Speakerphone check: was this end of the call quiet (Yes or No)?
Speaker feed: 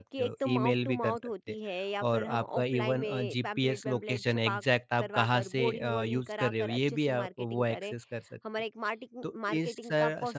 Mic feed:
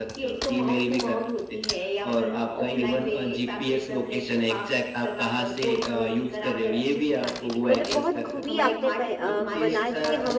No